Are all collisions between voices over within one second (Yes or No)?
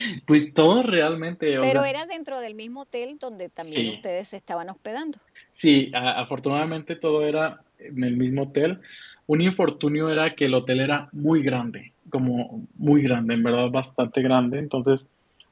Yes